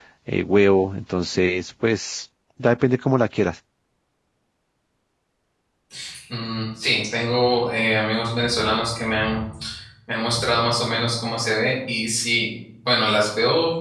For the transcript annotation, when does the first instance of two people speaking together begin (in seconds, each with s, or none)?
none